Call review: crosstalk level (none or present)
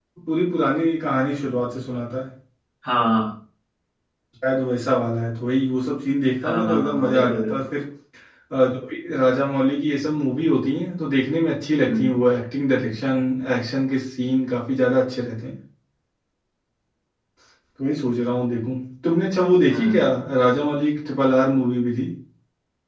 present